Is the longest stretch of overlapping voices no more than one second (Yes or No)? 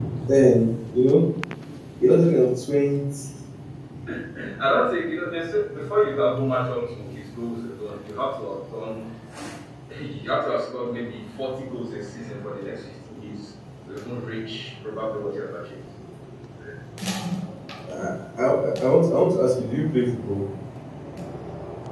Yes